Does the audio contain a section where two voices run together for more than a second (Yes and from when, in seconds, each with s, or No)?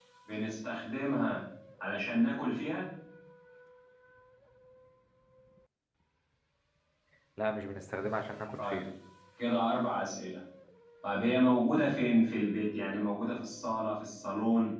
No